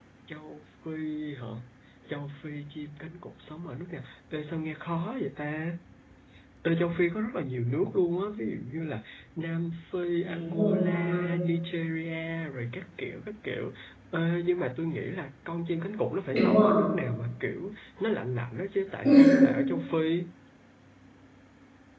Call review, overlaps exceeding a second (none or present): present